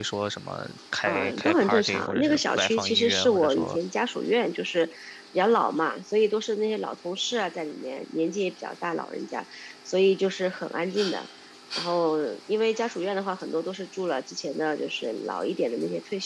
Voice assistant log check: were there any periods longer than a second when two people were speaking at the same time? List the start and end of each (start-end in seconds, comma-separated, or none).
1.1-3.8